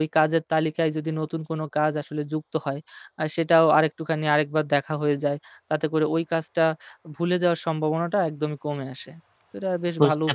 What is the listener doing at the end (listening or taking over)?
taking over